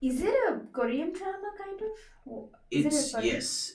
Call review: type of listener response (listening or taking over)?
taking over